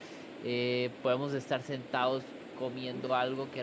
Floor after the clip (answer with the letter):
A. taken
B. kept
B